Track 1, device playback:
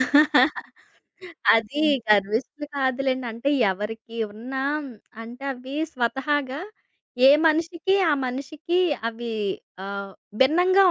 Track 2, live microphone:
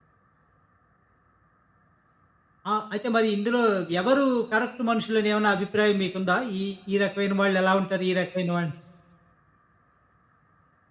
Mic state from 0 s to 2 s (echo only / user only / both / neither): neither